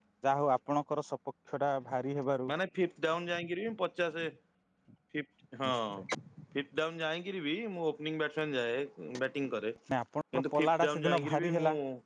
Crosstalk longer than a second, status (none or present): present